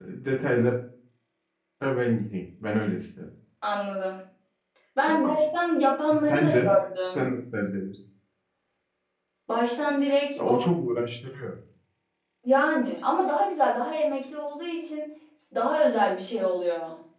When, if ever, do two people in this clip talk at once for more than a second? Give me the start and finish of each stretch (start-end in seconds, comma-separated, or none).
none